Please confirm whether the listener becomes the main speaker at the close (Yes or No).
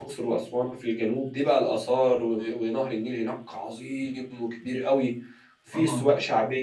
No